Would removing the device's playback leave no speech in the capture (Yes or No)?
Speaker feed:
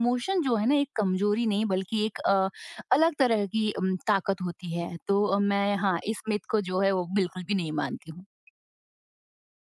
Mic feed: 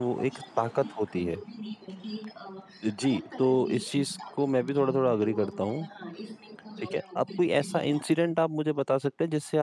No